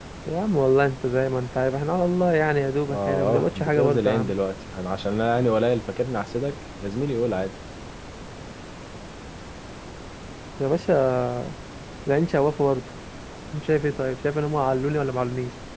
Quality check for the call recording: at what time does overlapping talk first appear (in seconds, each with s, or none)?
2.8 s